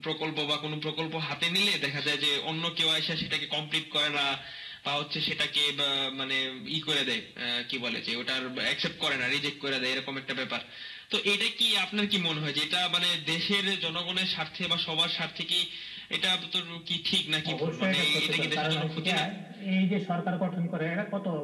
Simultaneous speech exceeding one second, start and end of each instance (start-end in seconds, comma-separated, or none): 17.6-19.1